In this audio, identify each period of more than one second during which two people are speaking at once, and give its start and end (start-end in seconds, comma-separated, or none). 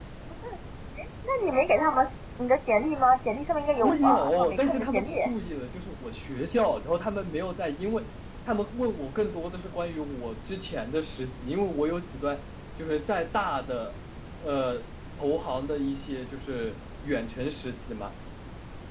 3.8-5.1